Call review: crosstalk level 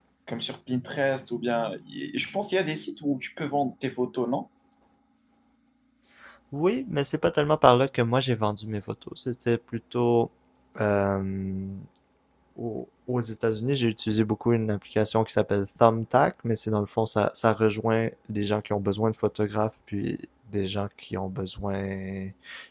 none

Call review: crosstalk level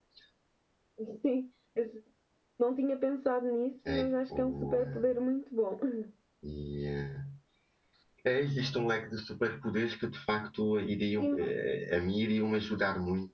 present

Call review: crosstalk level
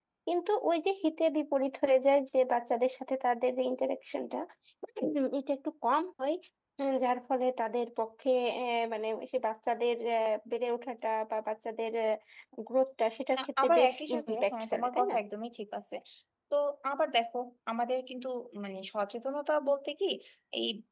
present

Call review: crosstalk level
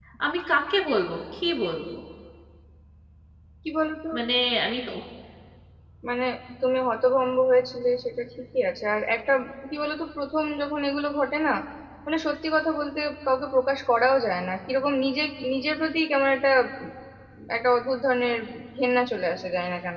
none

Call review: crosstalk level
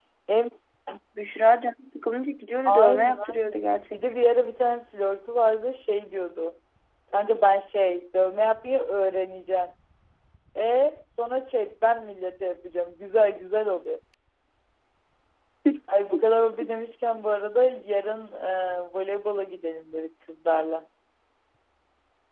present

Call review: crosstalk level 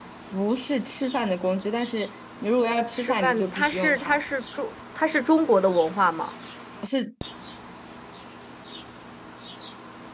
present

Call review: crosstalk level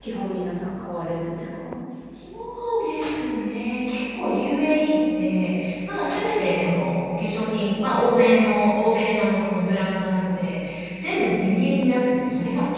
none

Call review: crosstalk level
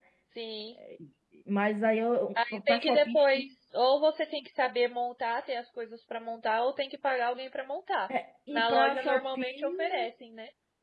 present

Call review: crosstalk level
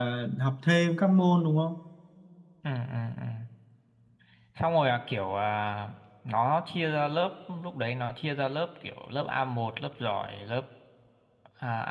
none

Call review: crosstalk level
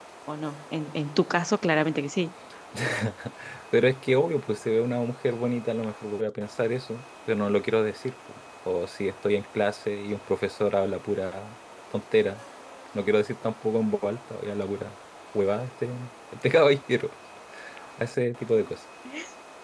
none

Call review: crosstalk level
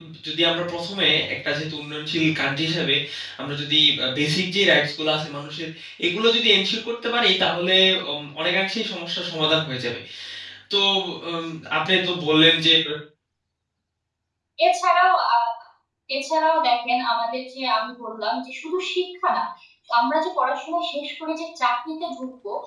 none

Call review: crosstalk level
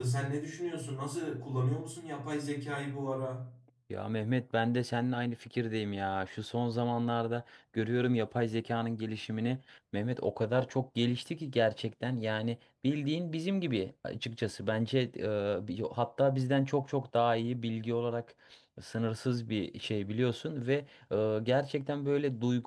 none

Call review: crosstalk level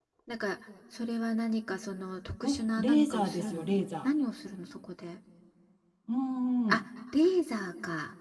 present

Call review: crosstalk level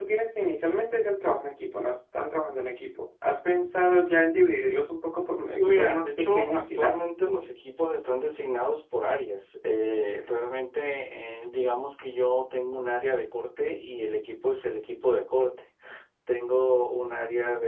present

